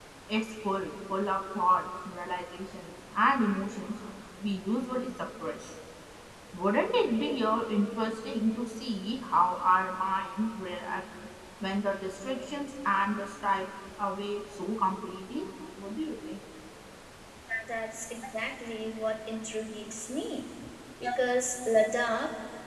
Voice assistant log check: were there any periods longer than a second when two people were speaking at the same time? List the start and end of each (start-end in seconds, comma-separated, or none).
none